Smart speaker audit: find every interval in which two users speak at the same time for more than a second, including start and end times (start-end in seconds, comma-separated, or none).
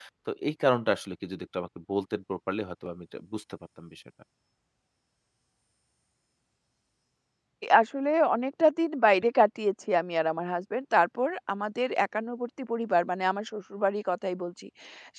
none